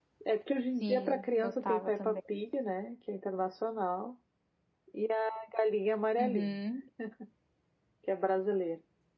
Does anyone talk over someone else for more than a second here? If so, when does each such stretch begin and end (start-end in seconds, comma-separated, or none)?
0.8-2.2